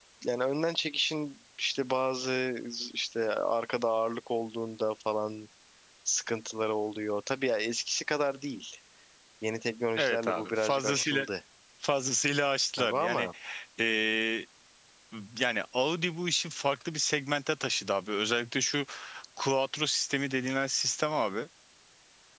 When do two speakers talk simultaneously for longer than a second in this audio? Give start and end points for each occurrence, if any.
10.0-11.2

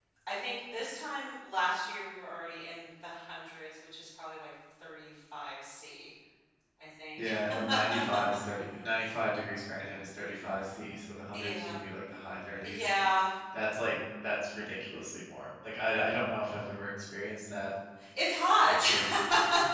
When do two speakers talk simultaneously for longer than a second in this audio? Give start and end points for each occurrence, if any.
none

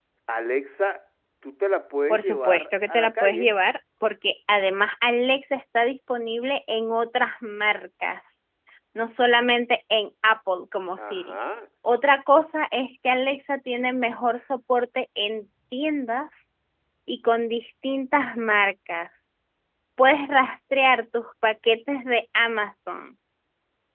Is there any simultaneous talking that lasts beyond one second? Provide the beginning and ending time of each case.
2.1-3.5

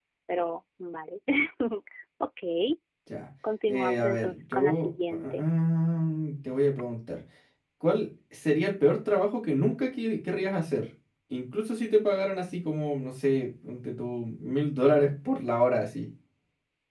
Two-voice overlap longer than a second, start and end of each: 3.7-5.5

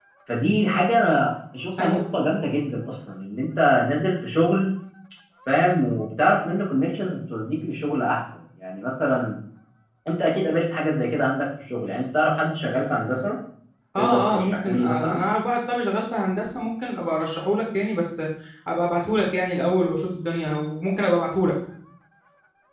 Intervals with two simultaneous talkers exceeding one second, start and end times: 14.0-15.2

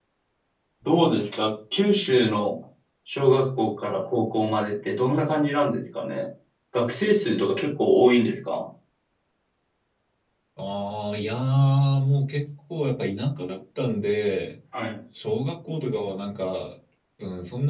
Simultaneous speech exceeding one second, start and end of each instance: none

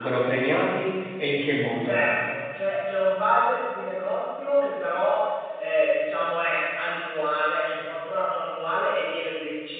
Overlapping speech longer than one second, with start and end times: none

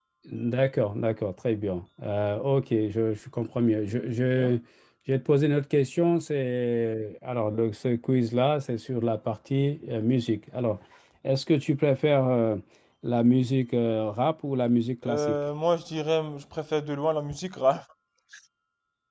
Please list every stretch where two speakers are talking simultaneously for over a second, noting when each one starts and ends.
none

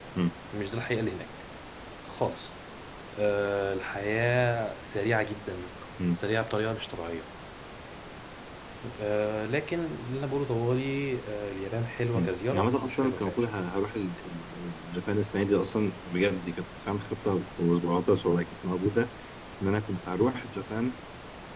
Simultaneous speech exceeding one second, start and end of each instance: 12.1-13.5

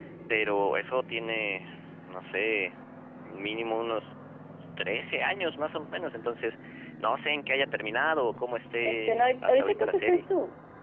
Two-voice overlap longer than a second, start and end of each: 8.8-10.2

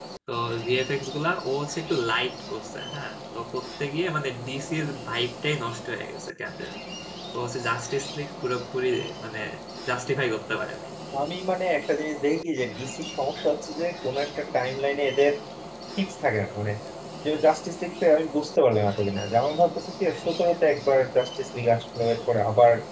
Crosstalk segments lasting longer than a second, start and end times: none

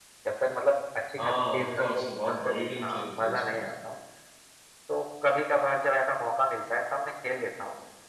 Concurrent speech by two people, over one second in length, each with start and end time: 1.2-3.6

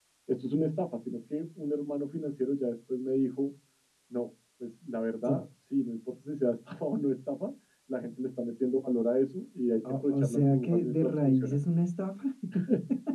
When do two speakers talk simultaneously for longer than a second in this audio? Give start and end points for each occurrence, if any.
9.9-11.6

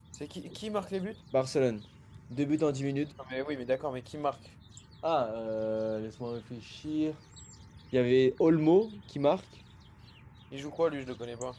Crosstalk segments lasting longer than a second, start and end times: none

